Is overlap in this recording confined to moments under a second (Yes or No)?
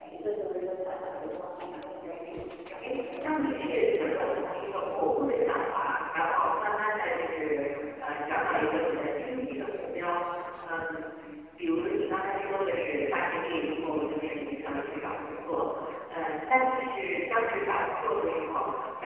No